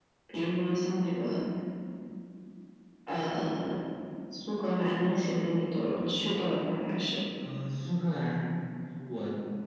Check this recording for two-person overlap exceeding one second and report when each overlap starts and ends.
none

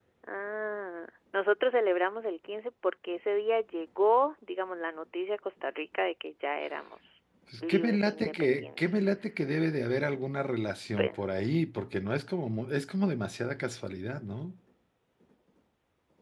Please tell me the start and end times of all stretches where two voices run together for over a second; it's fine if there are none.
7.6-9.0

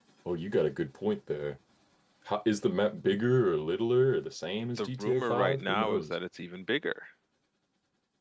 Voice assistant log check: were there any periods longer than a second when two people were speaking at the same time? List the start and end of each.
4.8-6.1

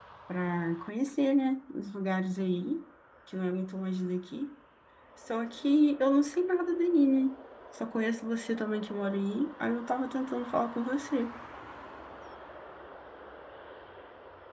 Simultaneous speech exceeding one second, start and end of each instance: none

